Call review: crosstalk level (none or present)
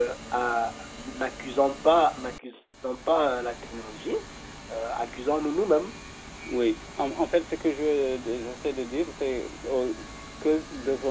none